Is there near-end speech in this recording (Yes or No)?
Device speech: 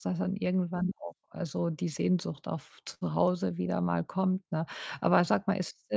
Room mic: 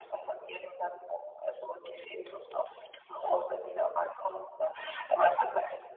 No